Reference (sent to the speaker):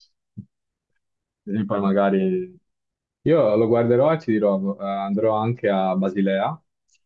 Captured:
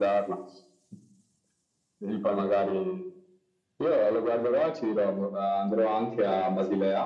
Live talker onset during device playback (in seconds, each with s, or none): none